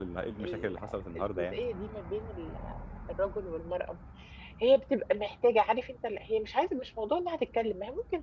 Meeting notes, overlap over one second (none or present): none